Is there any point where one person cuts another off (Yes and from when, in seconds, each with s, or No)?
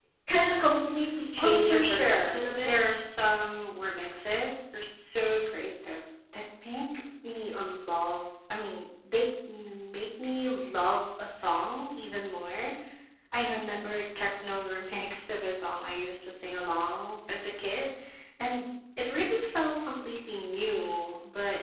Yes, from 1.4 s